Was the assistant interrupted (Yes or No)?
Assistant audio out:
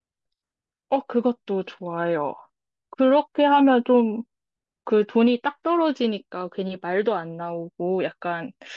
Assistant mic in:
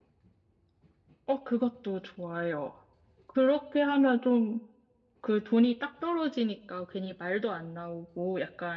No